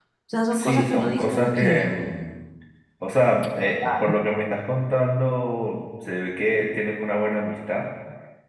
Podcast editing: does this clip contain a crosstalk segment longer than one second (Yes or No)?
Yes